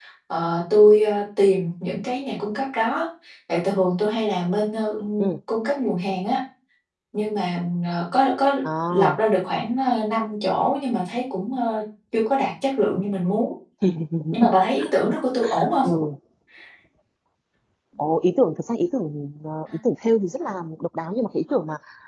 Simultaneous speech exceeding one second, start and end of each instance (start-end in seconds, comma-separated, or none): none